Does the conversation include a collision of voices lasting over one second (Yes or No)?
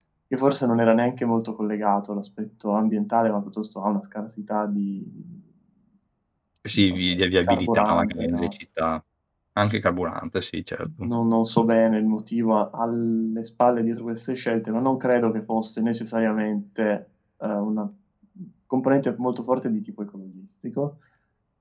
Yes